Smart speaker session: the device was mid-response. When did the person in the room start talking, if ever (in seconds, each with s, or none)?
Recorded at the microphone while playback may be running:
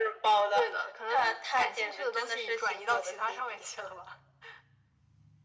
none